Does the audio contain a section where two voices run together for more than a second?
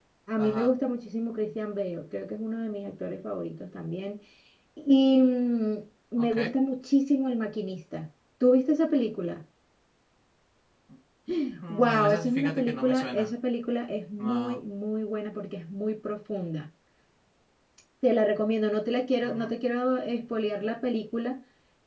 Yes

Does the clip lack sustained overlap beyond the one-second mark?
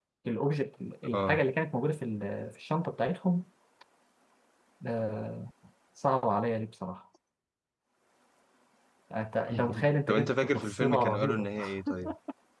No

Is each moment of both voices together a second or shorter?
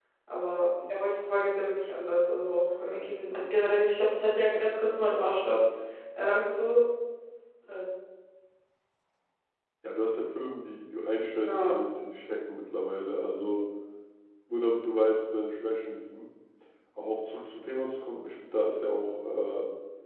Yes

